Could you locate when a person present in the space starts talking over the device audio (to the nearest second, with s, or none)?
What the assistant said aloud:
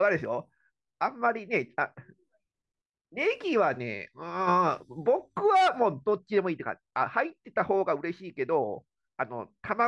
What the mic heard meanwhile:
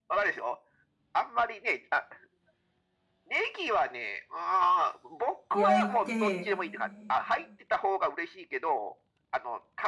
6 s